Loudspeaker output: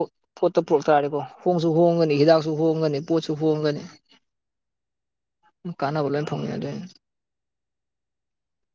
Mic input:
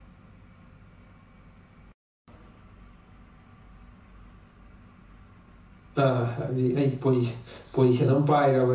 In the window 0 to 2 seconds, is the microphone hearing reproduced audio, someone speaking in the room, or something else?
neither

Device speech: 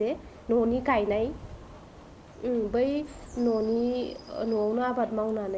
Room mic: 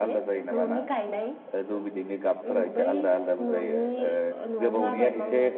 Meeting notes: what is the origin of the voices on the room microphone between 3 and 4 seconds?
both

